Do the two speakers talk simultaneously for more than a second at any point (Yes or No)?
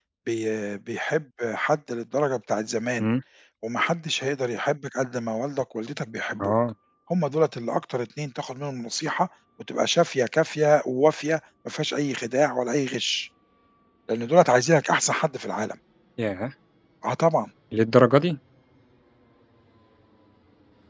No